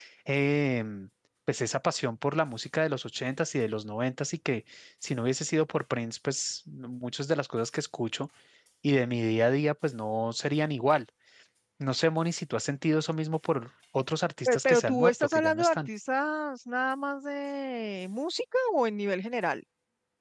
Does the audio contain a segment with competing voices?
Yes, from 14.4 s

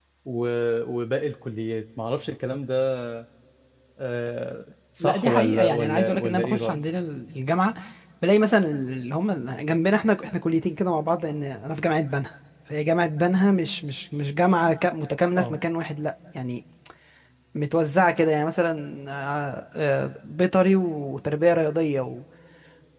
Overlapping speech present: Yes, from 5.0 s

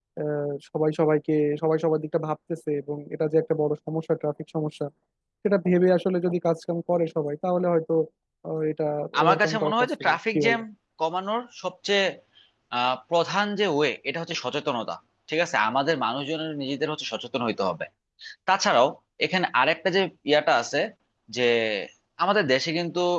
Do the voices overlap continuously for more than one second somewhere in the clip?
Yes, from 9.2 s

